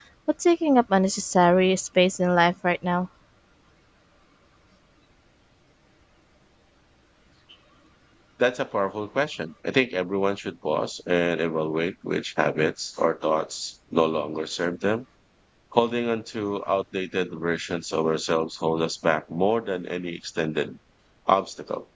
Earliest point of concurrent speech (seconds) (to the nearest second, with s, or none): none